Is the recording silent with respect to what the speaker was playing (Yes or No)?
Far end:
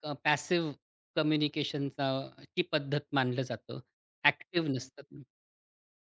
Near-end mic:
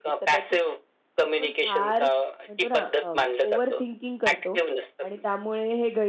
No